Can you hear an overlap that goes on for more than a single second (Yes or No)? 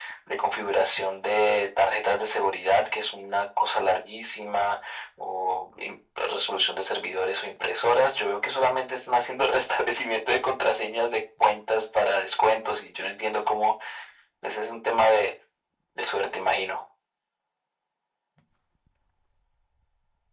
No